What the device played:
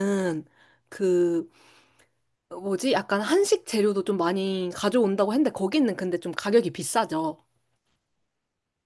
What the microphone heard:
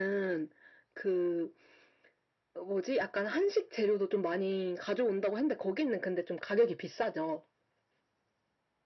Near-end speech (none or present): none